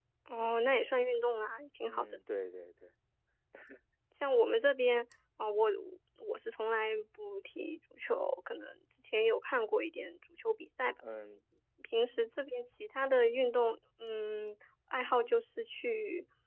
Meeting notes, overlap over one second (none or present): none